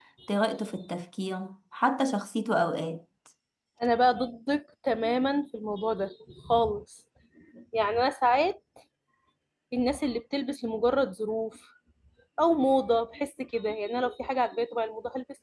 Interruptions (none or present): none